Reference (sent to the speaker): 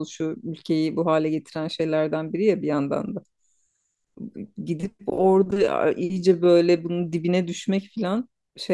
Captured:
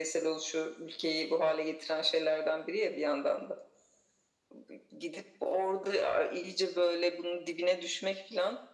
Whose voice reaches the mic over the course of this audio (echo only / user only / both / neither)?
echo only